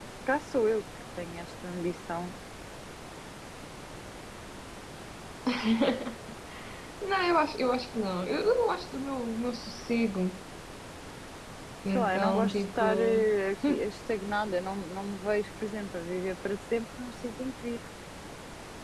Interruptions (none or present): present